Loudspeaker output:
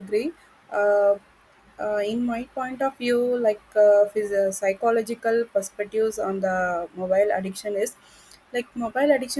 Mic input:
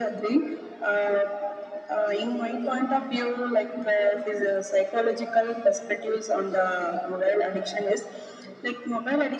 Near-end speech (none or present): none